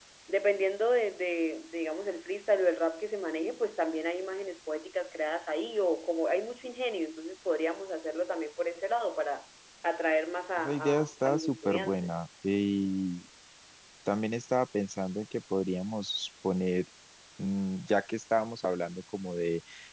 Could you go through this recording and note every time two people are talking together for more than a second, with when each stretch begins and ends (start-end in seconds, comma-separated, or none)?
10.6-12.1